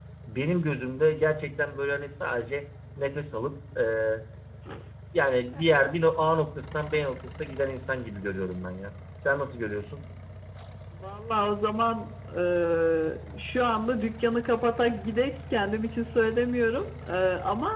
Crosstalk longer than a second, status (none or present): none